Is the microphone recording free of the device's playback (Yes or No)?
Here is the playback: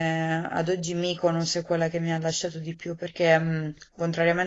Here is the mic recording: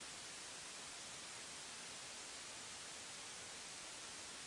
Yes